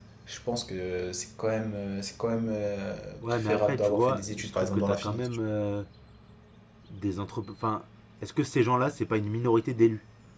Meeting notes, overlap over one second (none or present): present